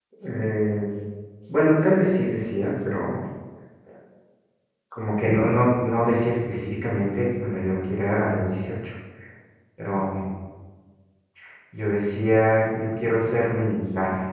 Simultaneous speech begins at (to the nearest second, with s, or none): none